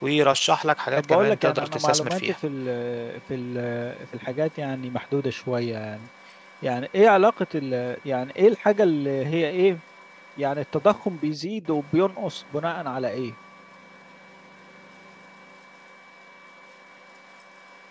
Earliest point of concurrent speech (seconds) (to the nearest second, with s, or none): 1 s